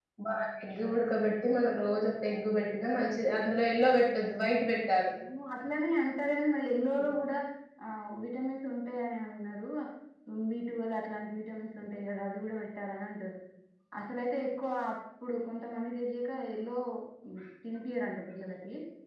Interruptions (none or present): none